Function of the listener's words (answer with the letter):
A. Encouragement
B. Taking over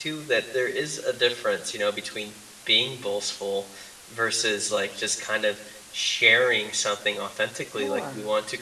A